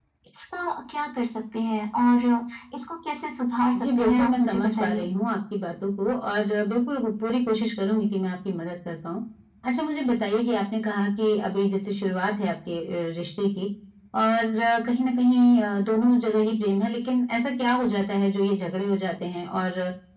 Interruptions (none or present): present